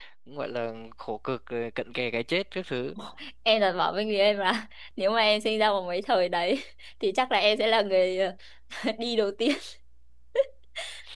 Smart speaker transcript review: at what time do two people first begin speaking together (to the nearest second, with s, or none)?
none